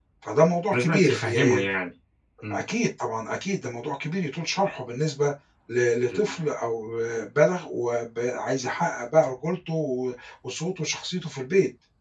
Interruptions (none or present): present